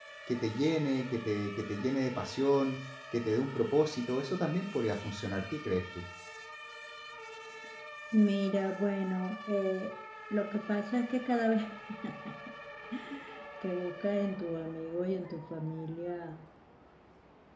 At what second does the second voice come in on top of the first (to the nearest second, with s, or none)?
none